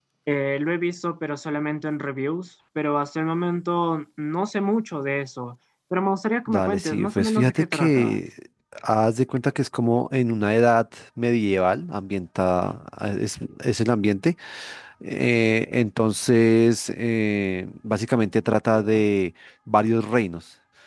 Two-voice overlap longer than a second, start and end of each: 6.5-8.2

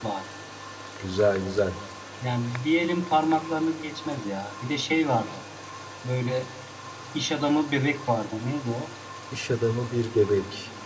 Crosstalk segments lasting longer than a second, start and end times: none

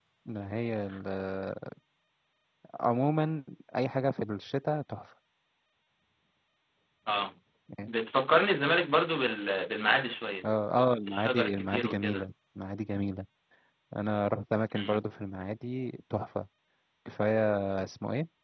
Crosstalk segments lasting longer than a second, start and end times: 11.1-12.3

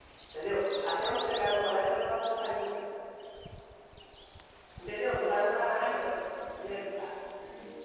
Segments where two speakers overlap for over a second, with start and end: none

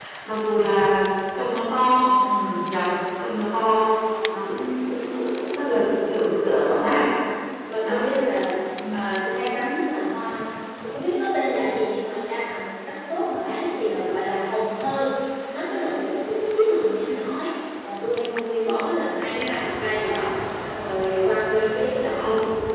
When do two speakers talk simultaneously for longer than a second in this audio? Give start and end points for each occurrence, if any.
none

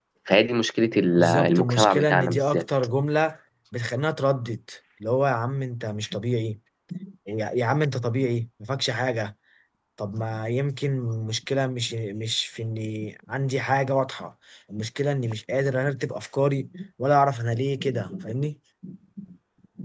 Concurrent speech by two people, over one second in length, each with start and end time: 1.2-2.6

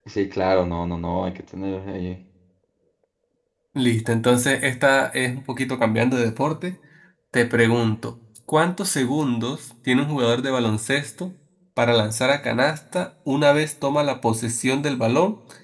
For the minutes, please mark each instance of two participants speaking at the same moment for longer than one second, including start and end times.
none

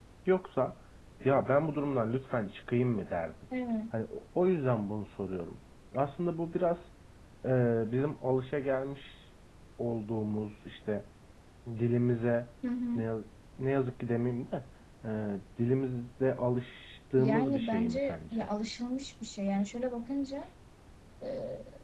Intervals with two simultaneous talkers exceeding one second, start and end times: 17.2-18.5

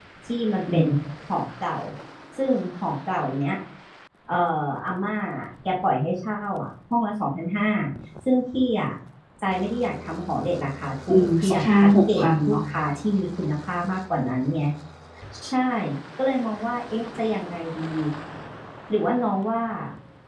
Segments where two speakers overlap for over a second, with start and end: 11.1-12.6

